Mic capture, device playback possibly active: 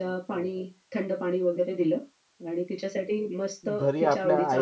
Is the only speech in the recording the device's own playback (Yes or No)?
No